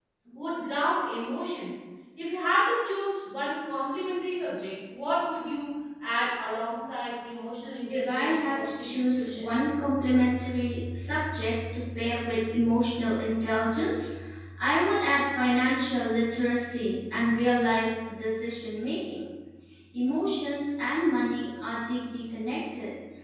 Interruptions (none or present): present